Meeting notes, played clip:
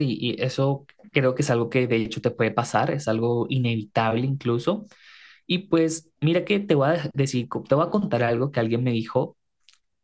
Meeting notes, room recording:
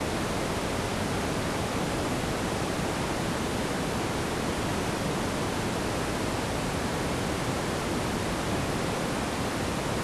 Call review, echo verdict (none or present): none